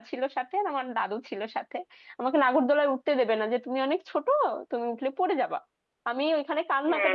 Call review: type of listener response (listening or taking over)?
listening